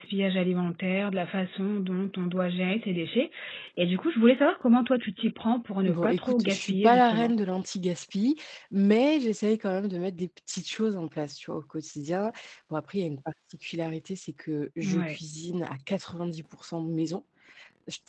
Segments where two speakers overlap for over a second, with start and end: 5.9-7.3

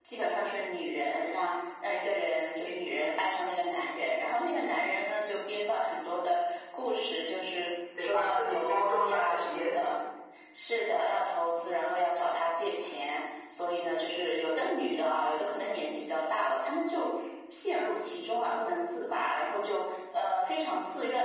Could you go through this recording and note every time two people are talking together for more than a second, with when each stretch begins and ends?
8.0-9.7

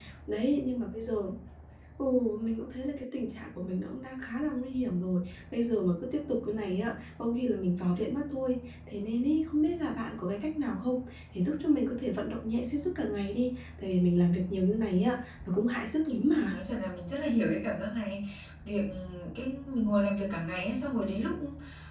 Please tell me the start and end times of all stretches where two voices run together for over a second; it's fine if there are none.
none

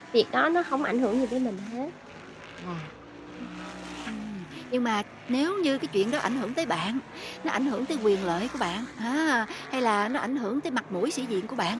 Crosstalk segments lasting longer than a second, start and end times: none

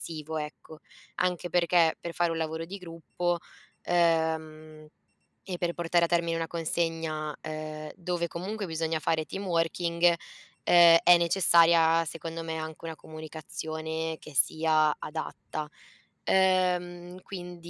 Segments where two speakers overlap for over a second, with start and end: none

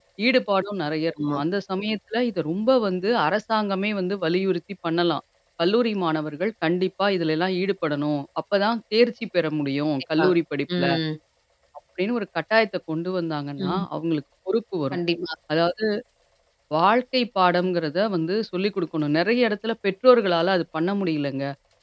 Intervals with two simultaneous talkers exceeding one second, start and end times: none

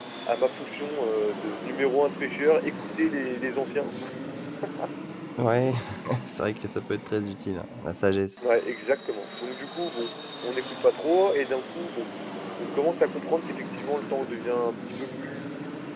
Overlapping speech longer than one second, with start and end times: none

